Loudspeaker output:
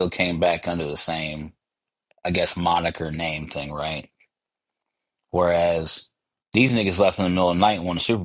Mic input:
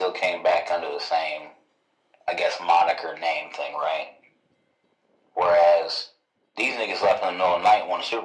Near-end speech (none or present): none